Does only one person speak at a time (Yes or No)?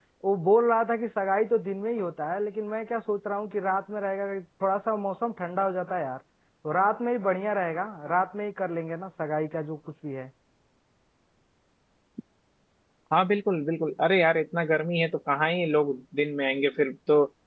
Yes